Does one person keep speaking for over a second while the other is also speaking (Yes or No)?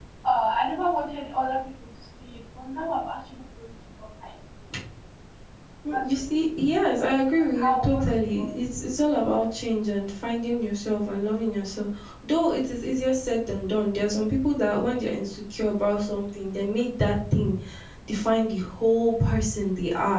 Yes